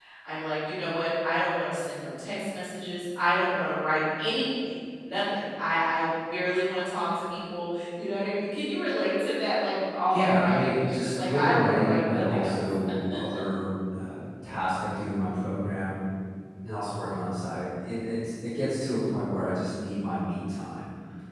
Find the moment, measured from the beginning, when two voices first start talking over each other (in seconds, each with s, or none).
10.1 s